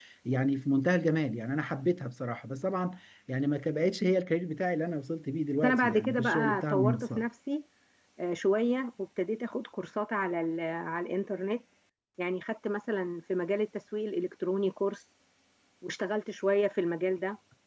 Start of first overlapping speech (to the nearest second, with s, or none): 6 s